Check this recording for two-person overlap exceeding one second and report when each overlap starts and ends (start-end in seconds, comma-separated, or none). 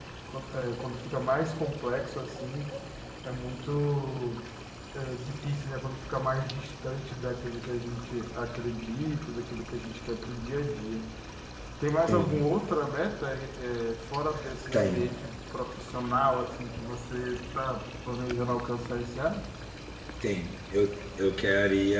none